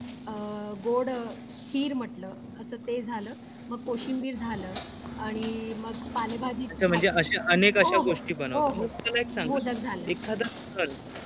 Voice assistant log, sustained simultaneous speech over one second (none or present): none